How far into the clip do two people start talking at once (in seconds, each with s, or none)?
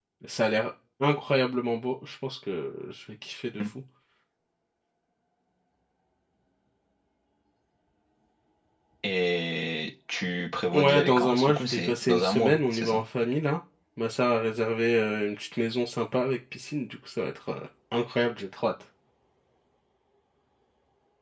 10.7 s